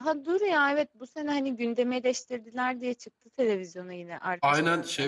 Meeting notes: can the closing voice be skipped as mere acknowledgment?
No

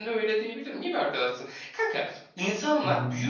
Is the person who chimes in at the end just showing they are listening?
Yes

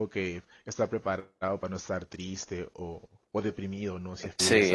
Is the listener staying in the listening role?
No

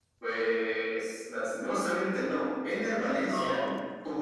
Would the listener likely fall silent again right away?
Yes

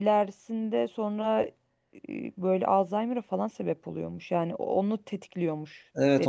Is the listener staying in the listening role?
No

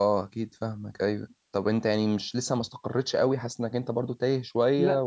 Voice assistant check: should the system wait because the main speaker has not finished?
No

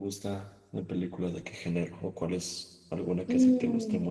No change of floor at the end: No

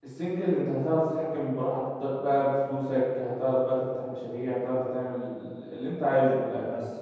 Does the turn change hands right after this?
No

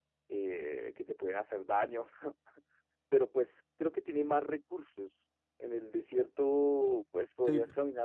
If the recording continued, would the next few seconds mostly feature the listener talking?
No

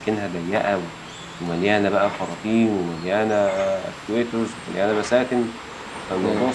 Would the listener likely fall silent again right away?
Yes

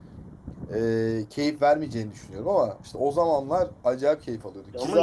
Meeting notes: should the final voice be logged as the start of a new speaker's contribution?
Yes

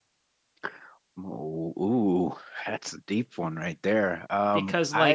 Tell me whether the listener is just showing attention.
No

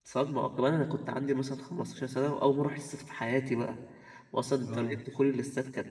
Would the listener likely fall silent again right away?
Yes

